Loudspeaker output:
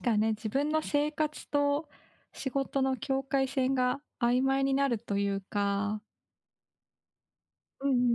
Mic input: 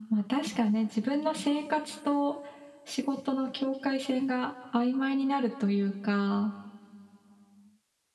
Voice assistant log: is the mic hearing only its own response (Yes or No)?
Yes